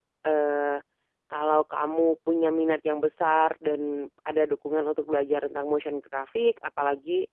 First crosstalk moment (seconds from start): none

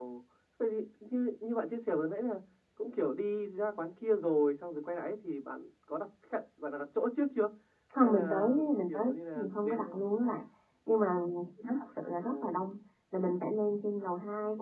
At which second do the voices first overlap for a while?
8 s

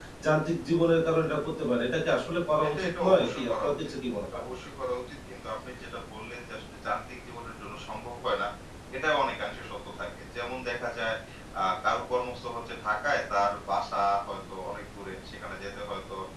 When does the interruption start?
3 s

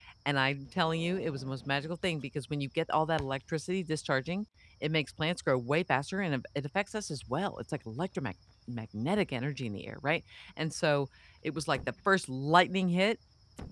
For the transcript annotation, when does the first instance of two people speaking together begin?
none

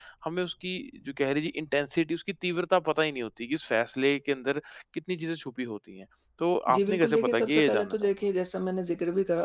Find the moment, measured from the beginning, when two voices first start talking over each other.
7 s

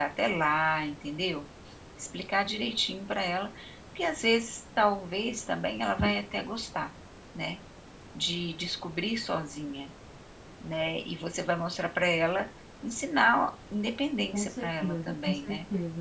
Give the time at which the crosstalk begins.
14 s

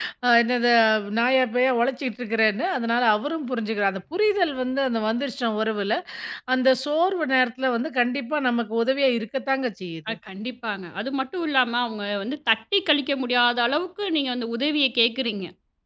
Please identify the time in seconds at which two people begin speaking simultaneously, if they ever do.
none

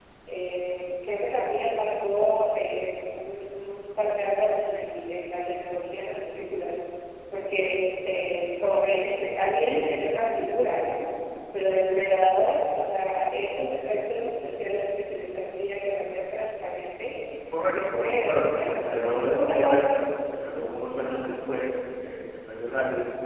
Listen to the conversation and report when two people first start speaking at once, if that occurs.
18 s

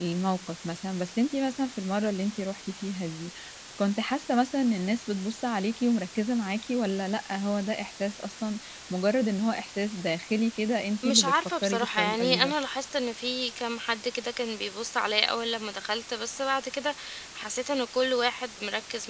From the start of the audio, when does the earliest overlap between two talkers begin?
11 s

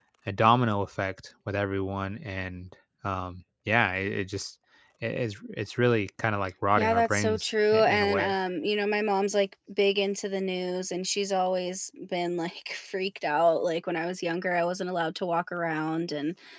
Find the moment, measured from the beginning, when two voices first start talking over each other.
7 s

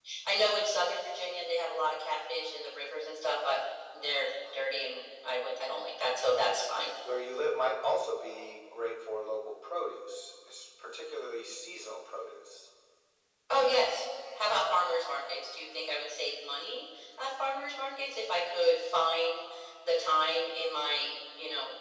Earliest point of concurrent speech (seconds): none

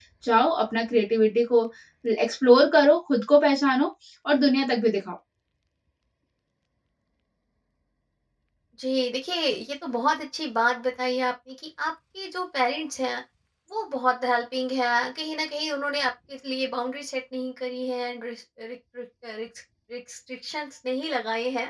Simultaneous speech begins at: none

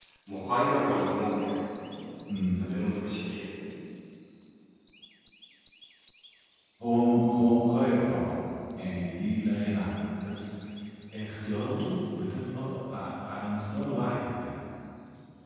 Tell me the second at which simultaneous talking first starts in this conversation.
none

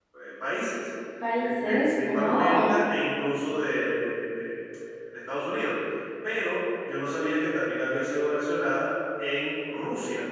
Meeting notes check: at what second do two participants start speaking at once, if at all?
1 s

